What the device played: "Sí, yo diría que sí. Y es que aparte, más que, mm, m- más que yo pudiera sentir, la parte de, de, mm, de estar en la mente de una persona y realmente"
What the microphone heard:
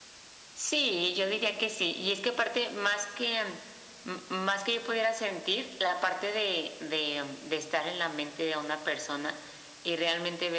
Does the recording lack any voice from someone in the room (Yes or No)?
Yes